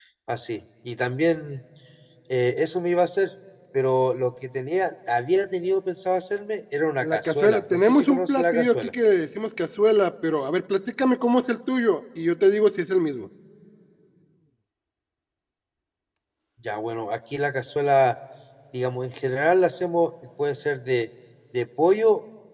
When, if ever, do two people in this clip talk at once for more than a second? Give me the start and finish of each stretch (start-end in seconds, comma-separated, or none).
7.0-8.9